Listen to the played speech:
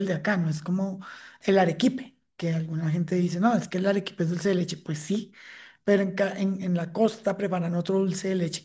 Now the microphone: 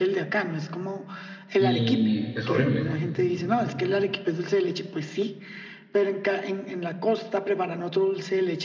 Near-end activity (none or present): present